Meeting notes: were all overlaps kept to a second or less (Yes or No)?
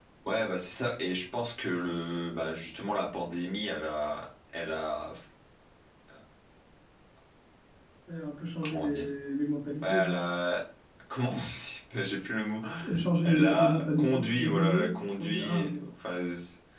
No